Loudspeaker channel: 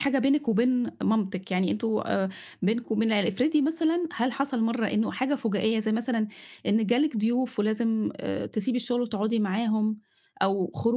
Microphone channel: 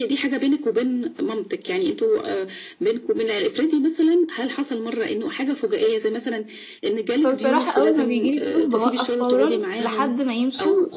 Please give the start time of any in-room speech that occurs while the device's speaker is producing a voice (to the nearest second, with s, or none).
7 s